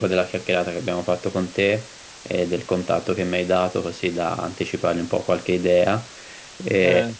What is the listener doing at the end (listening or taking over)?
listening